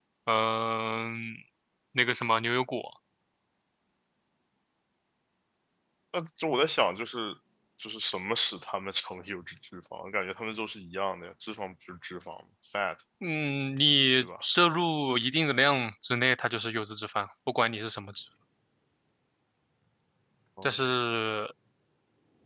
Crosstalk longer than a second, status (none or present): none